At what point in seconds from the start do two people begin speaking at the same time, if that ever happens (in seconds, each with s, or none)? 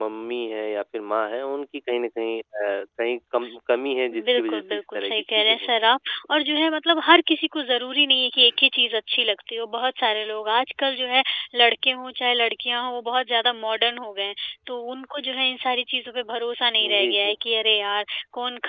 4.4 s